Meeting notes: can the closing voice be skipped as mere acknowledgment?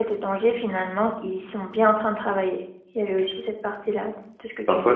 No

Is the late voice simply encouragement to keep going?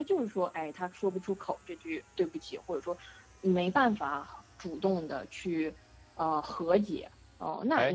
No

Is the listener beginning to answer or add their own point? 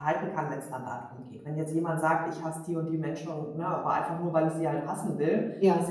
No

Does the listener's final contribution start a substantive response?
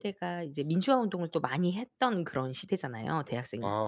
Yes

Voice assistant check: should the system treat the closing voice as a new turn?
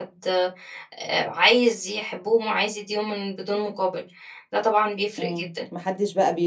Yes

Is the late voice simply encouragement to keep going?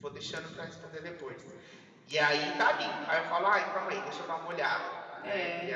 No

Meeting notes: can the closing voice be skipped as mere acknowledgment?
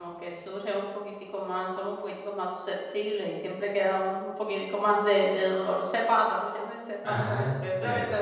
Yes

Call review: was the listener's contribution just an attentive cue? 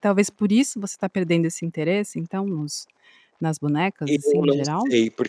No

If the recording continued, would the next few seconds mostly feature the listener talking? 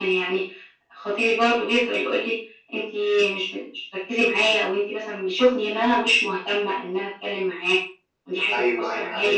Yes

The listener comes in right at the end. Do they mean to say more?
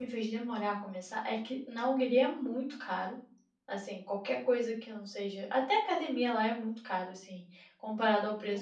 Yes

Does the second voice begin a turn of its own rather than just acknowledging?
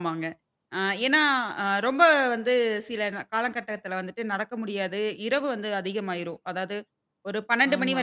No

